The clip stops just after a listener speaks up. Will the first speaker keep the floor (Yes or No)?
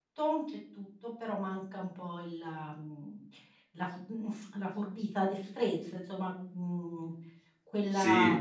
Yes